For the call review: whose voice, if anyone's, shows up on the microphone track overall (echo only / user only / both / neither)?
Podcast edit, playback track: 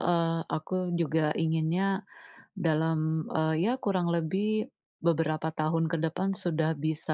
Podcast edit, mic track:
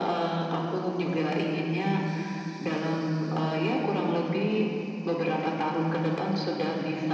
echo only